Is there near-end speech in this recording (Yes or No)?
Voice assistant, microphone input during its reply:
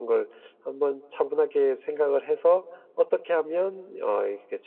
No